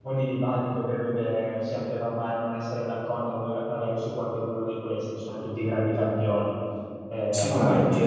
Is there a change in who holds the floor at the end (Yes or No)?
No